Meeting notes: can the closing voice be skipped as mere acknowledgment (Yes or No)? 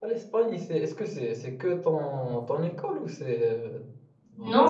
No